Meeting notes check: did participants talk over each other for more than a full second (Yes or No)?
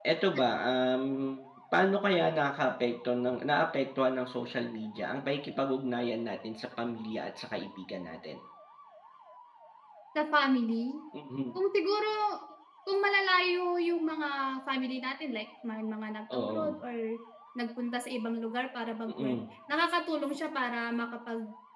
No